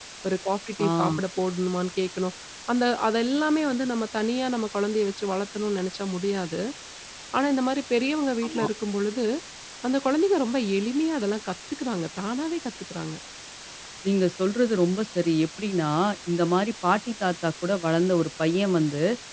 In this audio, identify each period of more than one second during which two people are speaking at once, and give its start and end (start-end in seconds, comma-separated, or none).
none